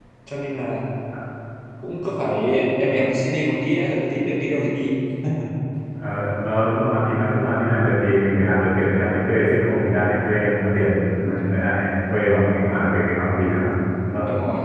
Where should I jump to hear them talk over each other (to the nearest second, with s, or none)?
none